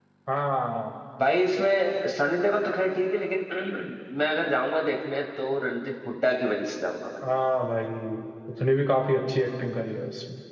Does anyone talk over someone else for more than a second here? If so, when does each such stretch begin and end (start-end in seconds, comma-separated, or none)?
none